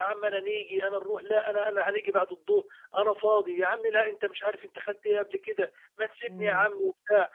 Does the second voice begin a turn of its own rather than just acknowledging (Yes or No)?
No